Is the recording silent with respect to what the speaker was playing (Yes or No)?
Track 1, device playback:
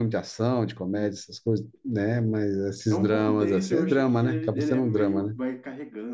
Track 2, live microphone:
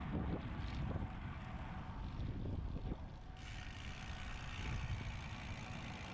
Yes